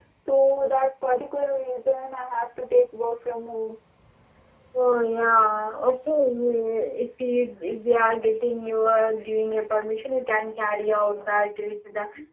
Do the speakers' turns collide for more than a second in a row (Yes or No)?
No